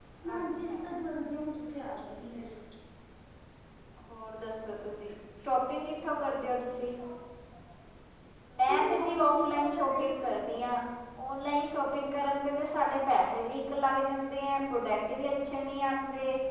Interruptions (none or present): present